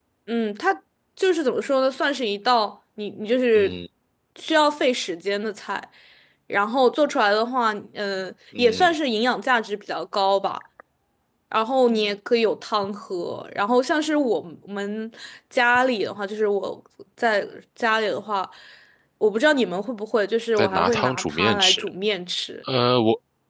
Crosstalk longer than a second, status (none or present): present